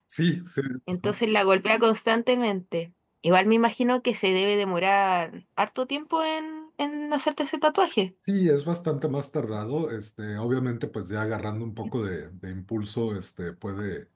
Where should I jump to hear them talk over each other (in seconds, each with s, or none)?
none